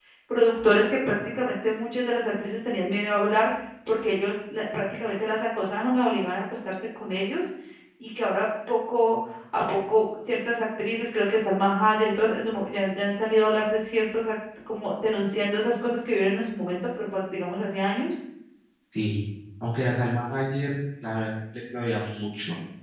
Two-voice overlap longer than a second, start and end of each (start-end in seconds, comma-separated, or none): none